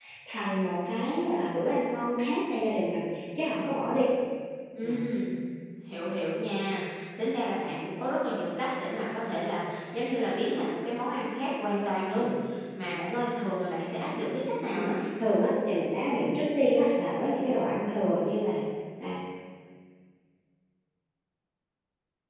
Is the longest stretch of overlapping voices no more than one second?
Yes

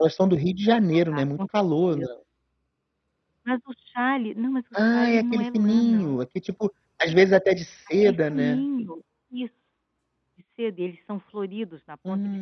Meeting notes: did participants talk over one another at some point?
Yes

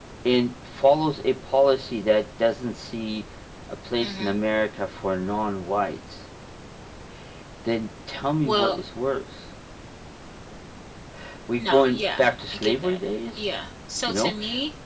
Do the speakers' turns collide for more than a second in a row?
Yes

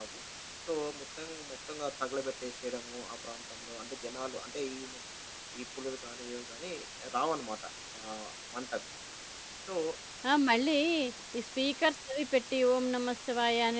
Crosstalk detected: No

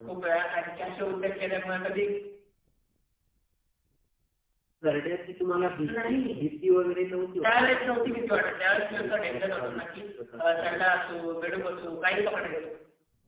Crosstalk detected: Yes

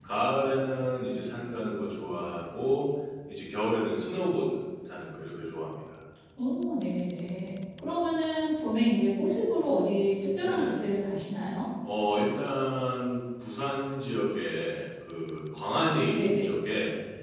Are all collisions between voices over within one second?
Yes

